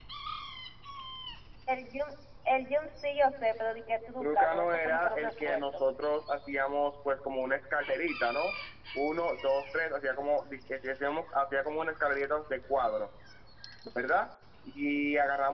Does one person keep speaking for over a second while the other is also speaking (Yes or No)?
Yes